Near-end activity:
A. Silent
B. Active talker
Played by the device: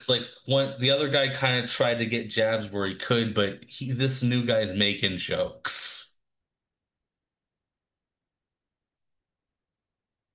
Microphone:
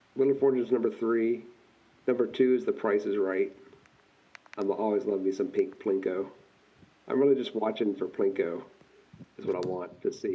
B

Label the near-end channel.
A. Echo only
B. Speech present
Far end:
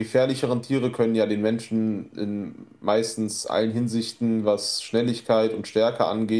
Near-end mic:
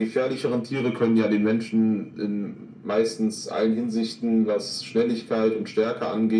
A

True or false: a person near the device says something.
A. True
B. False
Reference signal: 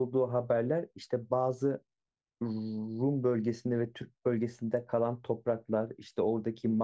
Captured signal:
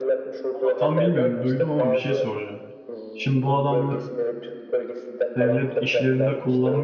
A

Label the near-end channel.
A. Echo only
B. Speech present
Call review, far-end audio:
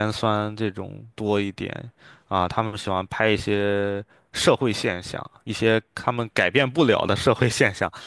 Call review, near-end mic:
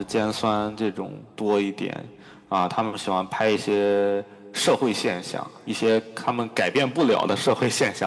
A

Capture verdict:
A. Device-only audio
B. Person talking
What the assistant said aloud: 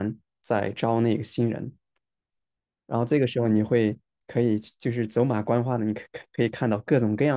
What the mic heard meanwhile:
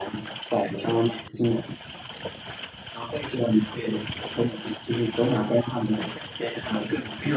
A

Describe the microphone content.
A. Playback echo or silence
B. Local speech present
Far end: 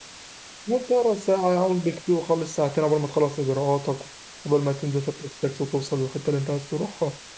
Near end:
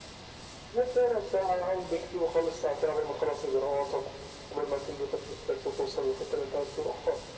A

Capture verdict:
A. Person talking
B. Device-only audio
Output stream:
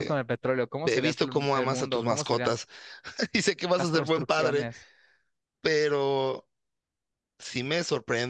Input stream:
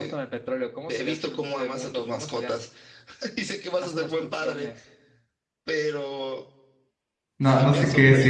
A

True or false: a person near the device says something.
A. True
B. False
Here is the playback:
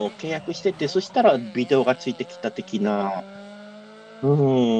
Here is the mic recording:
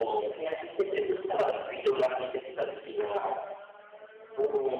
A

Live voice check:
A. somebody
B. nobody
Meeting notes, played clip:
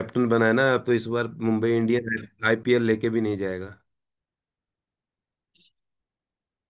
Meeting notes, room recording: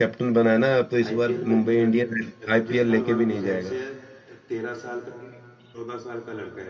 A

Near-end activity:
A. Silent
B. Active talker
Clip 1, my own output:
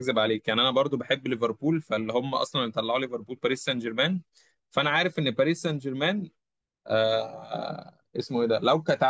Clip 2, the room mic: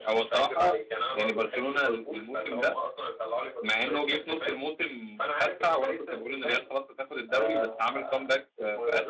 B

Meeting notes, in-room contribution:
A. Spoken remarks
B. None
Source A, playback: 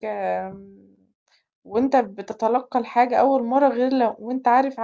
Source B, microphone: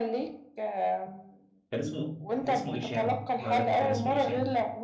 A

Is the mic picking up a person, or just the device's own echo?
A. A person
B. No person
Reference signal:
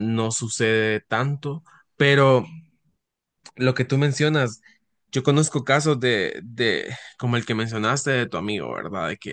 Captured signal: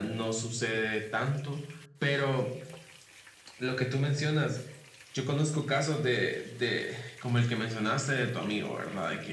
B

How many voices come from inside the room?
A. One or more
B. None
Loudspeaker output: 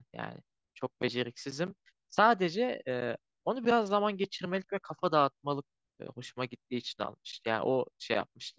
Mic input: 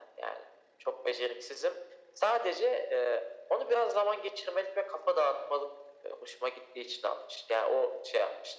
B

